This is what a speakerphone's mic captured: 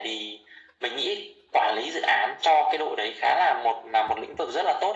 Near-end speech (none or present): none